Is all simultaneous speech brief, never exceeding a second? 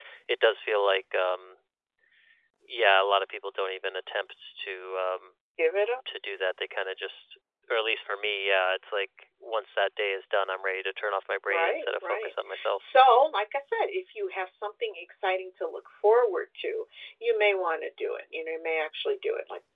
No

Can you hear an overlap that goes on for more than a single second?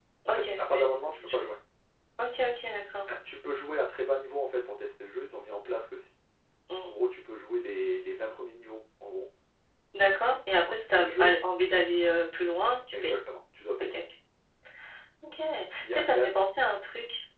Yes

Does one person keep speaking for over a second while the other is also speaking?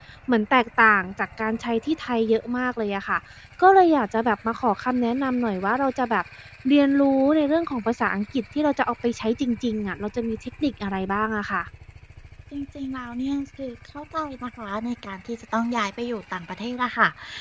No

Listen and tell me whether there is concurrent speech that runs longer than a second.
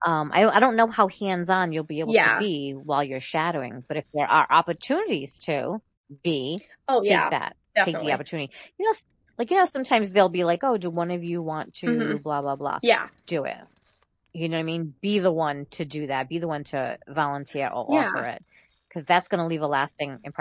No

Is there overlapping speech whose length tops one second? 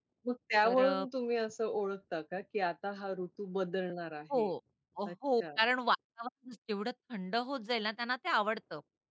No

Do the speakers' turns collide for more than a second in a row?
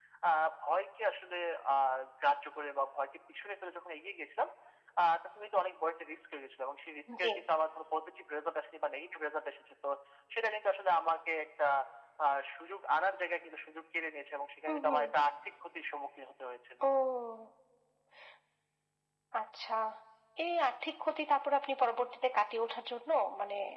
No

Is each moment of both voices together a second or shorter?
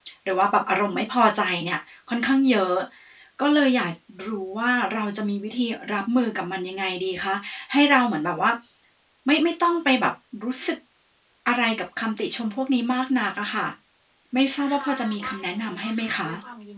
No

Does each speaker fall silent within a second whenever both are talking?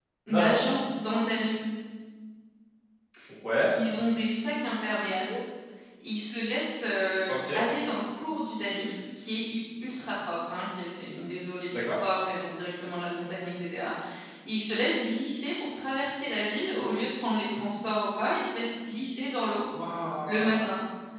Yes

